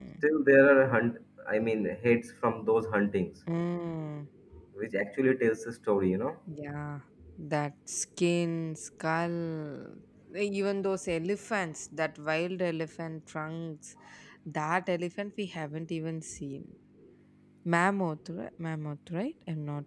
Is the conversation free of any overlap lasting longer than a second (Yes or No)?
Yes